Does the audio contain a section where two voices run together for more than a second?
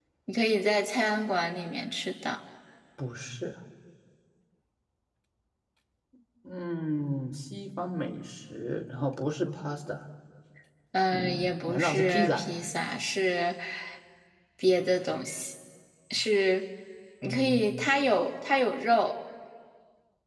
Yes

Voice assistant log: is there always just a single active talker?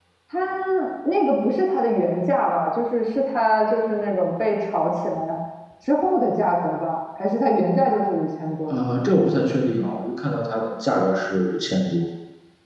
Yes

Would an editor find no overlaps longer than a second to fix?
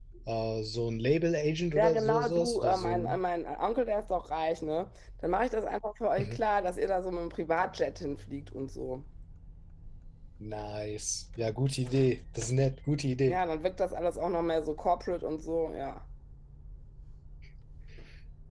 No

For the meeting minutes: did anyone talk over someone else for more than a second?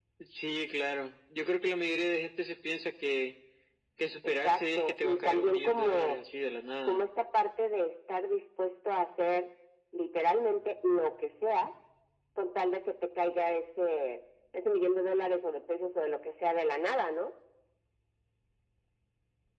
Yes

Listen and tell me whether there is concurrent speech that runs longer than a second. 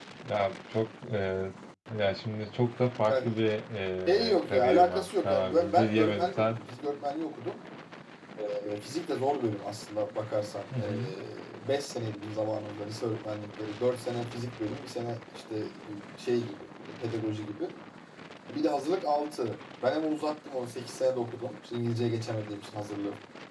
Yes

